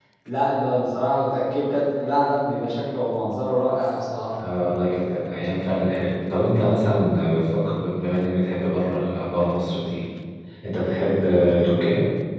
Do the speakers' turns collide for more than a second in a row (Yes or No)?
No